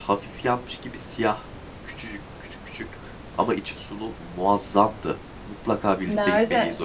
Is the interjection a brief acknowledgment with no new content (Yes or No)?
No